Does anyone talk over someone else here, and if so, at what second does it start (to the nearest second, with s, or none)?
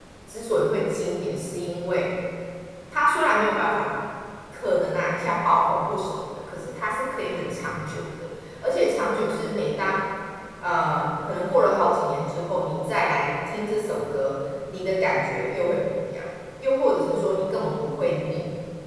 none